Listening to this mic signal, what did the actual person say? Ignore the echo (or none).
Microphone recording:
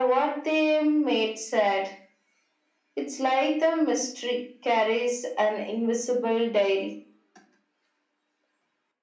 none